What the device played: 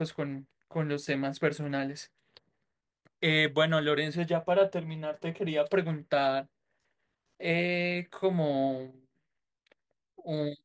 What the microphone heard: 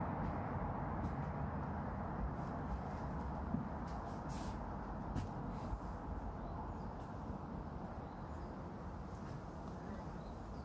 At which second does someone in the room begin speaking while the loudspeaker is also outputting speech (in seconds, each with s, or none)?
none